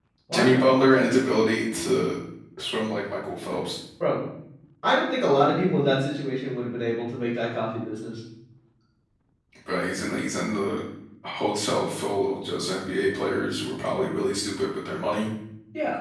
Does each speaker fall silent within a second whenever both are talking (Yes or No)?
Yes